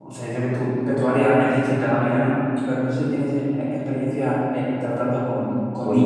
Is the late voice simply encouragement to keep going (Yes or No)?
No